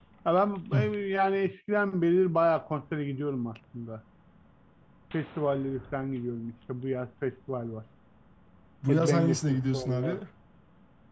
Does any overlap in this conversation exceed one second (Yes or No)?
Yes